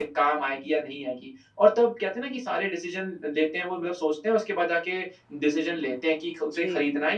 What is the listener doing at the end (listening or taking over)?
listening